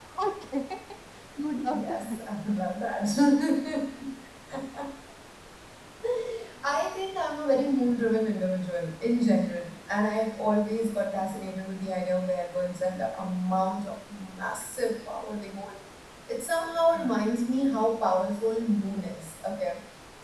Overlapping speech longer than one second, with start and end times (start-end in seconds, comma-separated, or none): none